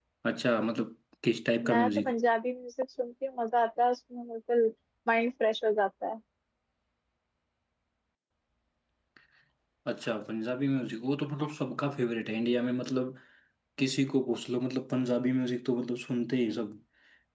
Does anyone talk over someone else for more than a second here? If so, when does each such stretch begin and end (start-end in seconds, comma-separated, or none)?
none